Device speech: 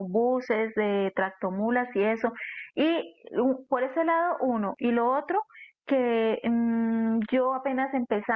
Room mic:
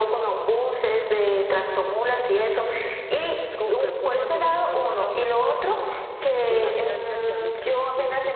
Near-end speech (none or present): present